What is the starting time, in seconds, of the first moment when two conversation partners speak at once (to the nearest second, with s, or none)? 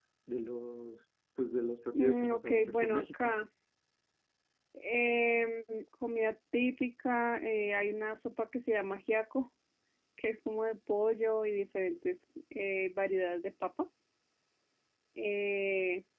2 s